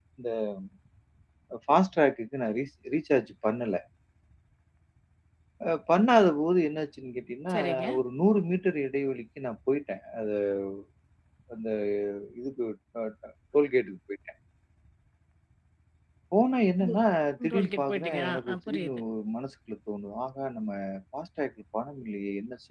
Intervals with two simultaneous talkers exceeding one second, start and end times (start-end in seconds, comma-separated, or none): 17.5-19.0